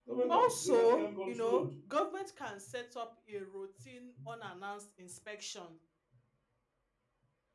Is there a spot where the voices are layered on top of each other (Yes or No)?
Yes